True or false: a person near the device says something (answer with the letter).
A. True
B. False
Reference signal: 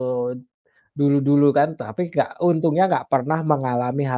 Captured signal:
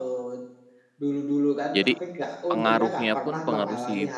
A